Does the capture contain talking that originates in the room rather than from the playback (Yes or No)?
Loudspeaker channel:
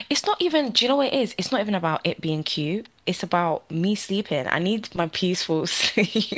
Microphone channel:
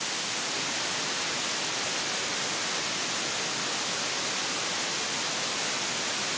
No